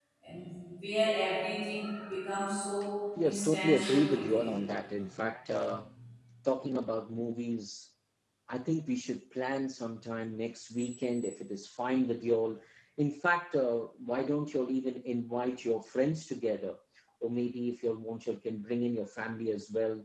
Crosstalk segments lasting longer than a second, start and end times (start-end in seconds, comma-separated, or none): 3.2-4.5